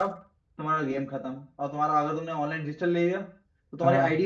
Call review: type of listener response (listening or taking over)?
listening